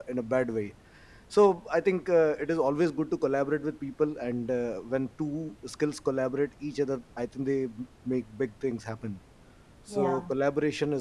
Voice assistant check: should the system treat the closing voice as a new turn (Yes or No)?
No